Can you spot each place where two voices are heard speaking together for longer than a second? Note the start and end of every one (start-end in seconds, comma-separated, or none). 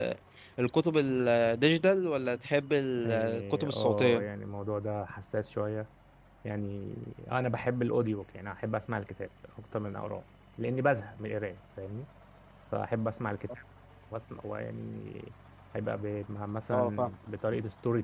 3.0-4.3